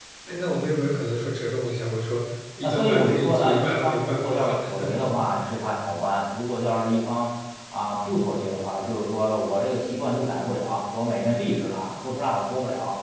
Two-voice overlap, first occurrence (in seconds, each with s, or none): 2.6 s